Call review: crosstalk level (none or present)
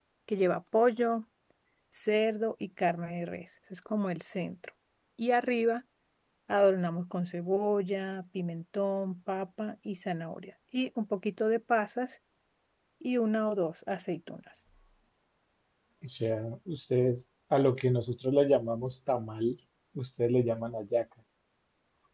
none